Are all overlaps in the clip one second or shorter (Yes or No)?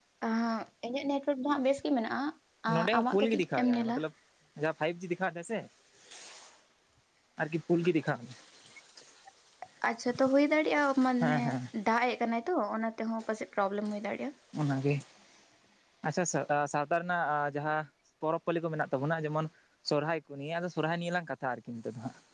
No